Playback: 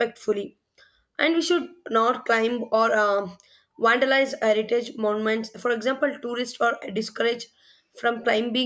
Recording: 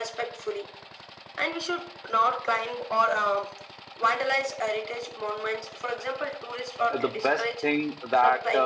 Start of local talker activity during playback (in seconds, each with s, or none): 7.0 s